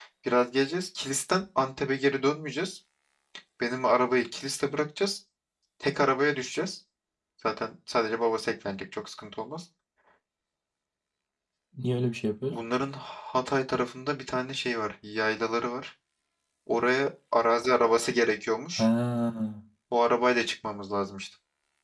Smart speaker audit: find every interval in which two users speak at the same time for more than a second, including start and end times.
none

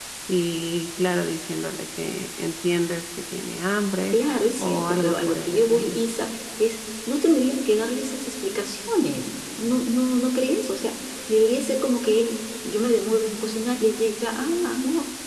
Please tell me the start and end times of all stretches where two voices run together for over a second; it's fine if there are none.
4.6-6.0

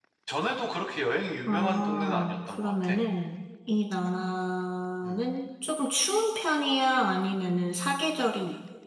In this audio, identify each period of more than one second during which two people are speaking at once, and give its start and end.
1.5-3.0

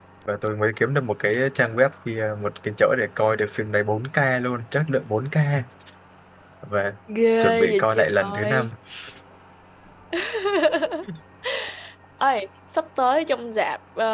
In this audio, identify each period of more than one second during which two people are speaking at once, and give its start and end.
7.4-8.7

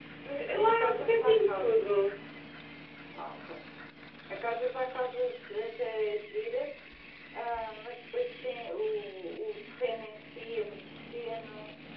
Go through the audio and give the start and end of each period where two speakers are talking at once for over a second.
0.6-2.0

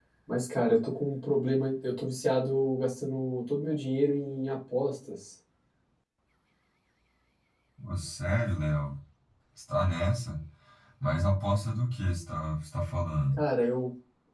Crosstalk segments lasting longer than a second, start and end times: none

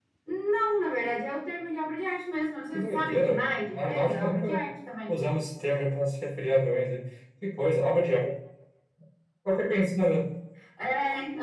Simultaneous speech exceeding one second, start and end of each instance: 2.7-4.6

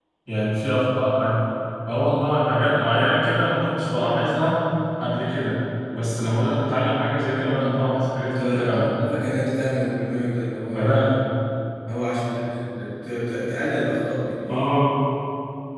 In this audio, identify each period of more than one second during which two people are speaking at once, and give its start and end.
7.2-8.7

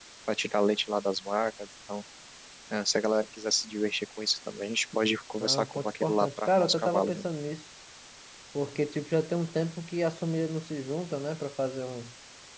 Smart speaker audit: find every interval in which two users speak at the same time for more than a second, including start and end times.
5.4-7.2

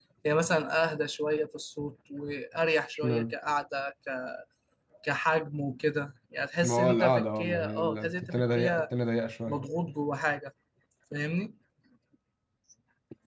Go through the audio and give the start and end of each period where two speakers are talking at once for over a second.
6.6-8.8

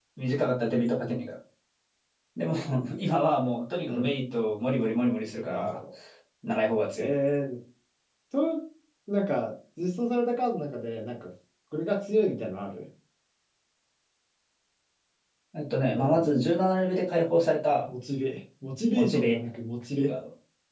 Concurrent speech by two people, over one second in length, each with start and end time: none

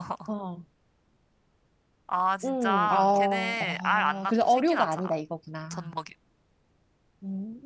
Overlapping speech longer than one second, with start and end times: 2.4-5.1

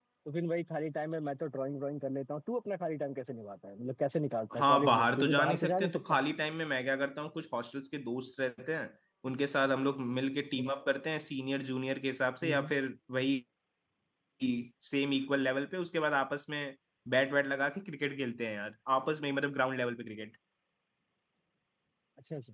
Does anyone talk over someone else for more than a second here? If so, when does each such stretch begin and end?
4.5-6.0

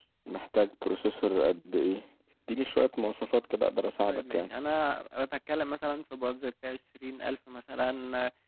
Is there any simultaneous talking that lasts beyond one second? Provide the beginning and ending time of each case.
none

